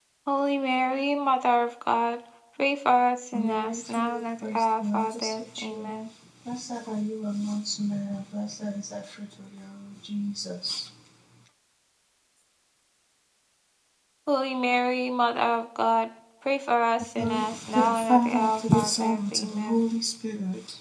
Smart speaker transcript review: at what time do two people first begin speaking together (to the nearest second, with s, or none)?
3 s